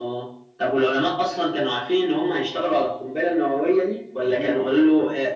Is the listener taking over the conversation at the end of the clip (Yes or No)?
No